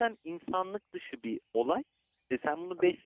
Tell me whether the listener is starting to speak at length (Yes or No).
No